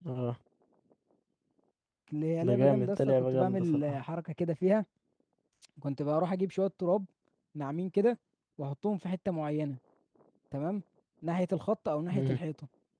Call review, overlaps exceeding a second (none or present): present